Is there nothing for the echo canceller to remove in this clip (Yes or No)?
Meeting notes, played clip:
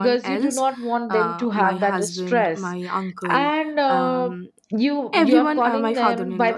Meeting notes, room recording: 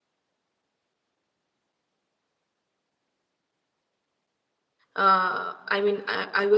Yes